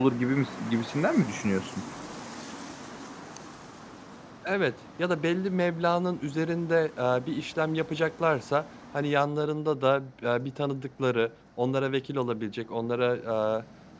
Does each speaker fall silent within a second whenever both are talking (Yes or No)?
Yes